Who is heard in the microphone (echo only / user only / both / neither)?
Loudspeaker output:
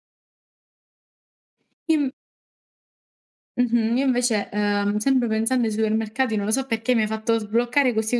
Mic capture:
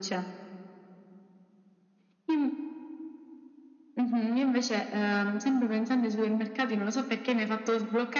echo only